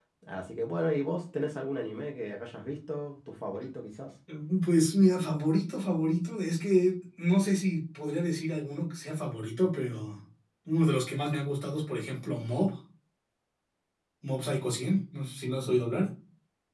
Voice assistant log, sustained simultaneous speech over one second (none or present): none